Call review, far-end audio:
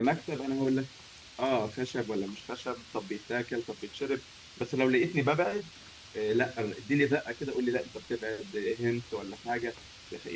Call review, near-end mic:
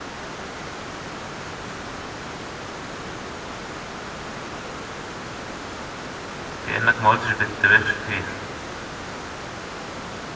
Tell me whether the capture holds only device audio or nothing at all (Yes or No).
No